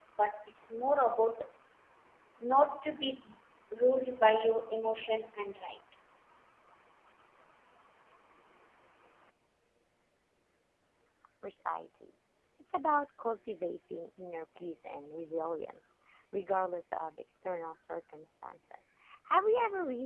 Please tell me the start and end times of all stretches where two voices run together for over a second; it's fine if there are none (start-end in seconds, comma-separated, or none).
none